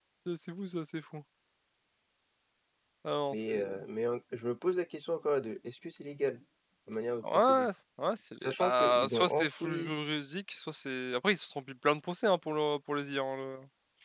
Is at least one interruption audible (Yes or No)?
Yes